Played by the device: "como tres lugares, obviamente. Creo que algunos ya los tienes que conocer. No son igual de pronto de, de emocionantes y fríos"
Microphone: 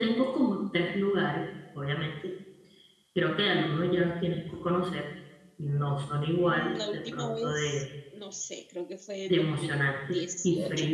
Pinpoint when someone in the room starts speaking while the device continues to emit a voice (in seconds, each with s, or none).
6.4 s